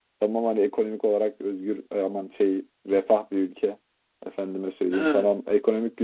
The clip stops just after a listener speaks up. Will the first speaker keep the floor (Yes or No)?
Yes